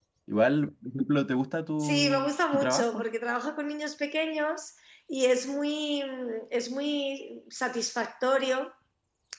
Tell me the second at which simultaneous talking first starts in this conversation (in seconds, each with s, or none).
1.8 s